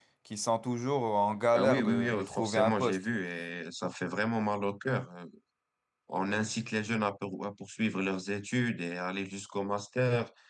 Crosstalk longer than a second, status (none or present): present